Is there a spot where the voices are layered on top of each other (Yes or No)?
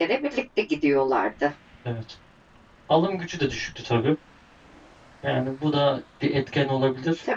No